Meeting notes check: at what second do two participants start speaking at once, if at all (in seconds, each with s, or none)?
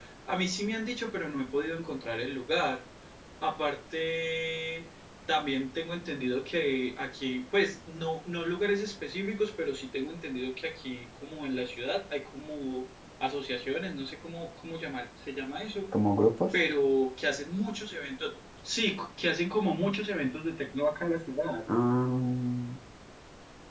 none